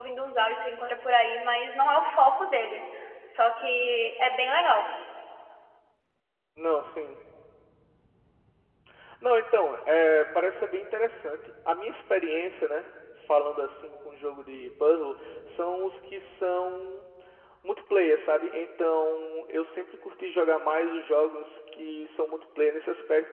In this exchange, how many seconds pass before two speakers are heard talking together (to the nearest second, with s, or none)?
none